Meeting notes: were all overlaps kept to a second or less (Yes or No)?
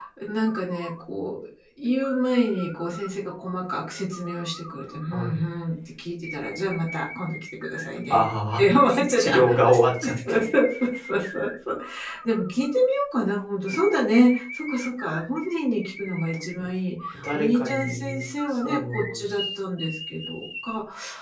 No